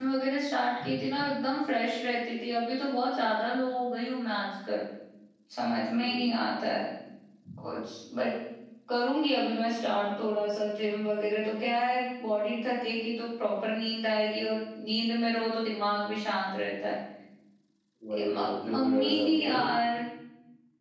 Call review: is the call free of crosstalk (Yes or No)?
No